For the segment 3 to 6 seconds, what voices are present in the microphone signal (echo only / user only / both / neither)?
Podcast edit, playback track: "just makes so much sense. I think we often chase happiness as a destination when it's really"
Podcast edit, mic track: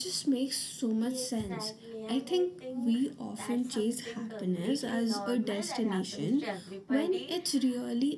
both